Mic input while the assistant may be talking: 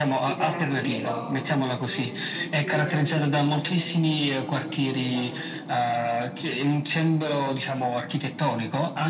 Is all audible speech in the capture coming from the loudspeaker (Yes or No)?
No